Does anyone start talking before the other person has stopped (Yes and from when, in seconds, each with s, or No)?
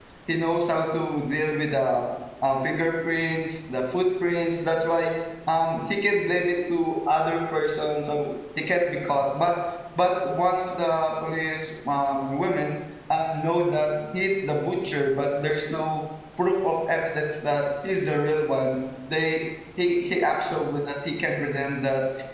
No